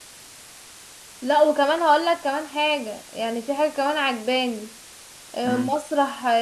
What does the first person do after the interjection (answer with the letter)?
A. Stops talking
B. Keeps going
B